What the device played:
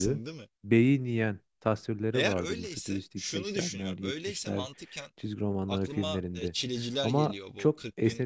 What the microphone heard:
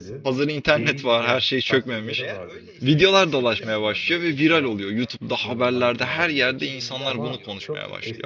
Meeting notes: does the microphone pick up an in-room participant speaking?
Yes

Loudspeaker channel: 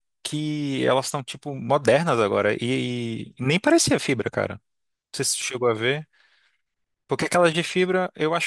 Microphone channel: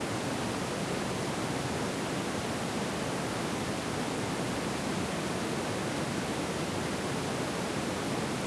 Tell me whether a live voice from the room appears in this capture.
No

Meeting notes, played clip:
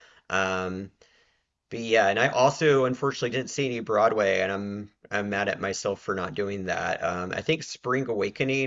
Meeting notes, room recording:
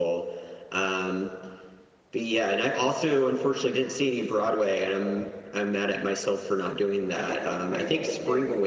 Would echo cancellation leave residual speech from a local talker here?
Yes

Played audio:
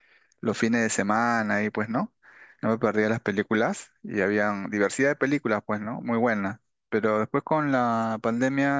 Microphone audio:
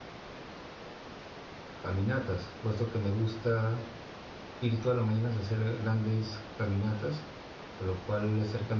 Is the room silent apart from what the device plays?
No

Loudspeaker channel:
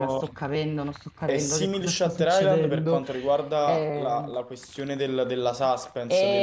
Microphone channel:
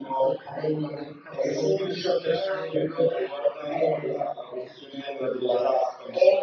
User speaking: No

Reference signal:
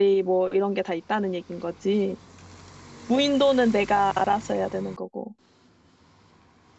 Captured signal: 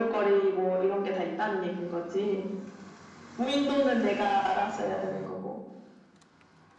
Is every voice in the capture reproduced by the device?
Yes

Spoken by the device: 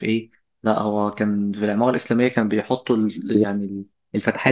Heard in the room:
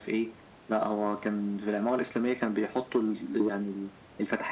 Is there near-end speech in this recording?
No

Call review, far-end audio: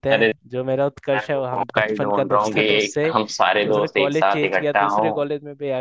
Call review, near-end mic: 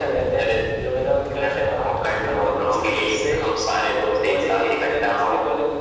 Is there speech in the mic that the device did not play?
No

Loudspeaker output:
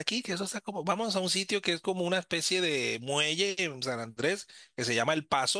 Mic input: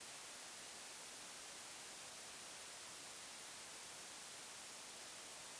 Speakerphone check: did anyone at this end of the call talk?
No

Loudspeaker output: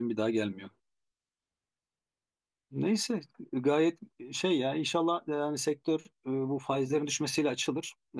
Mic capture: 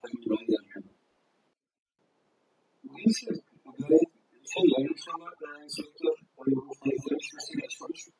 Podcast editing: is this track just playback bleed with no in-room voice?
Yes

